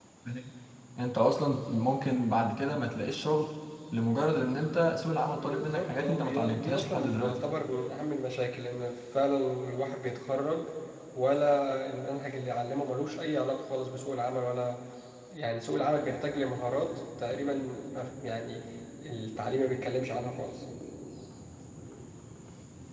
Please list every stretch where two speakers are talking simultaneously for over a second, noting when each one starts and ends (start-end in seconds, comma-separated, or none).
5.4-7.4